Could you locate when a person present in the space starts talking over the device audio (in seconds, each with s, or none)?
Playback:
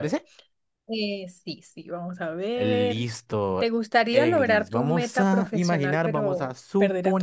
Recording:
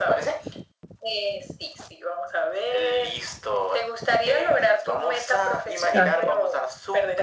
5.9 s